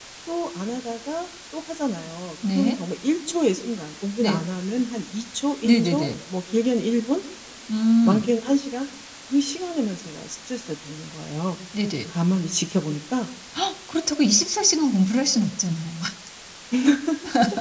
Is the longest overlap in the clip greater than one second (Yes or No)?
No